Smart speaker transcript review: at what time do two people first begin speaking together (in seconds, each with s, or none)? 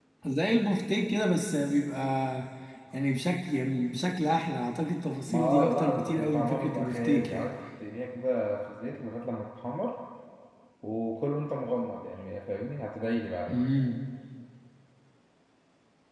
5.3 s